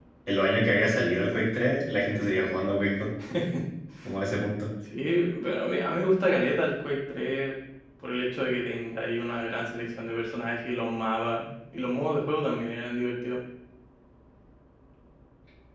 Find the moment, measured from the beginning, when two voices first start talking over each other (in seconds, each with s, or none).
none